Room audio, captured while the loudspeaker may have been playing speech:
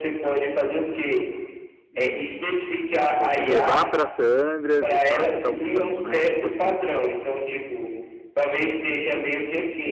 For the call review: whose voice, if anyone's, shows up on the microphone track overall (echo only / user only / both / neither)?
both